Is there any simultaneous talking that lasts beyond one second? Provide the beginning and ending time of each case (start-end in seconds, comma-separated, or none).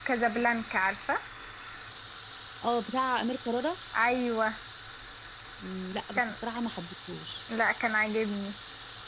none